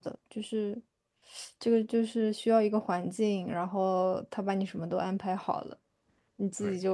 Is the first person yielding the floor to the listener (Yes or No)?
No